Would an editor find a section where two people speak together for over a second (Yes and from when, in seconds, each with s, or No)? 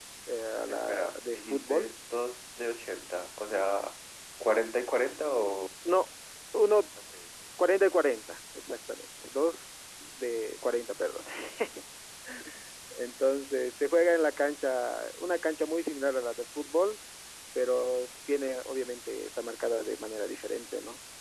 Yes, from 0.7 s